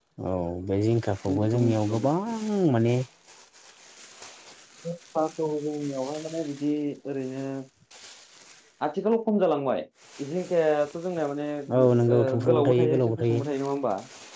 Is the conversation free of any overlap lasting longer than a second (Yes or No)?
No